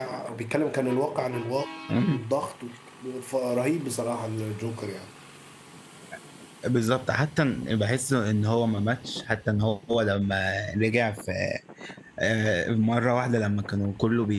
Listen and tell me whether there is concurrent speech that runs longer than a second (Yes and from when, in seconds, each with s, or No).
No